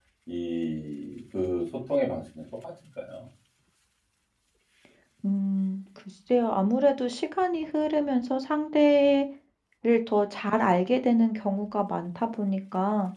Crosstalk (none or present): none